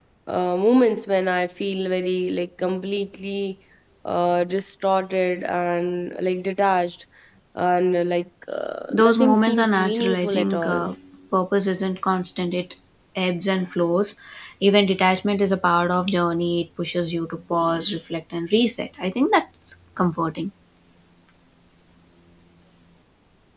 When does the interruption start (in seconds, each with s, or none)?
8.9 s